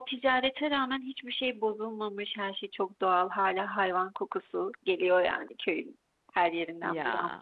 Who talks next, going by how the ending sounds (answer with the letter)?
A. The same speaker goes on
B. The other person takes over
A